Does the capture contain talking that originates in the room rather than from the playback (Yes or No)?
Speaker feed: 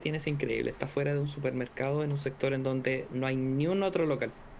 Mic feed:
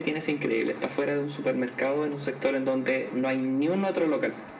No